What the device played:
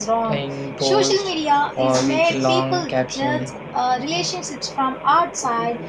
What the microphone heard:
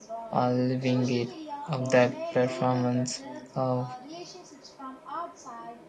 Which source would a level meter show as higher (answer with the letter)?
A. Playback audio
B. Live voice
B